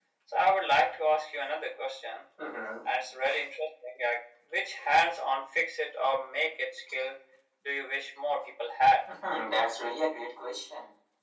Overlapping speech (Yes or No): No